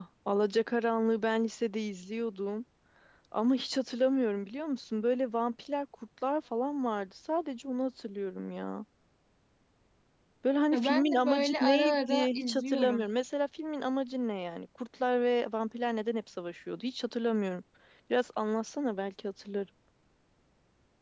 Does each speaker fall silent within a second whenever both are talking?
No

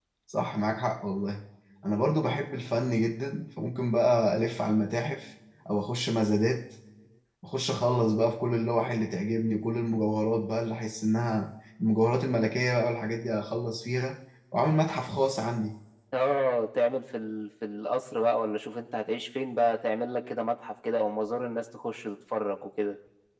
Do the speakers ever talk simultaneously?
No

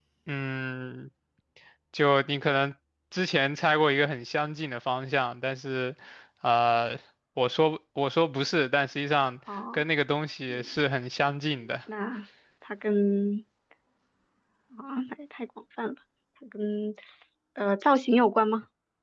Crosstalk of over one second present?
No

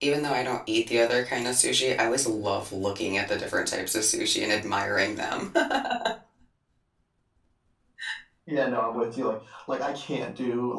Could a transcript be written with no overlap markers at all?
Yes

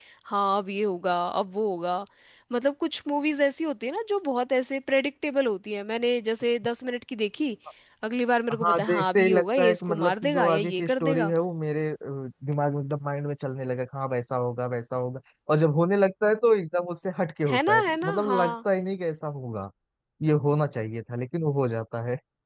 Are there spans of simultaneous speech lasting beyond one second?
Yes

